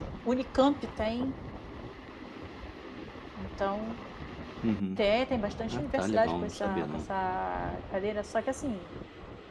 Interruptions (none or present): present